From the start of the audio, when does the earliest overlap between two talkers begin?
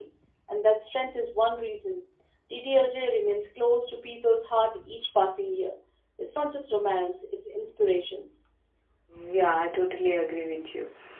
none

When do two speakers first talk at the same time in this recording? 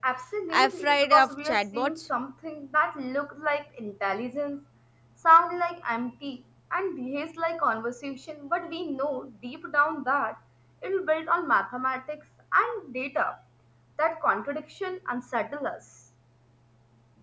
0.5 s

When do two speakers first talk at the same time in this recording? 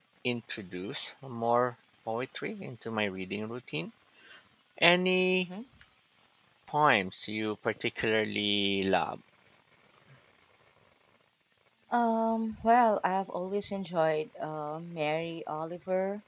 none

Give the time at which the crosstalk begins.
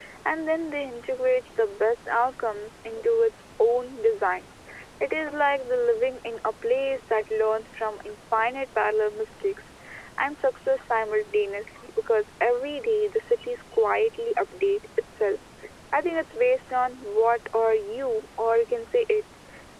none

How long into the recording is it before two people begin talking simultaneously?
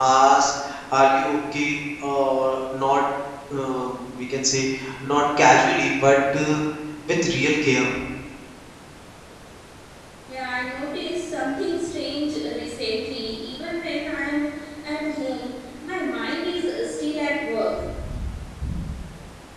none

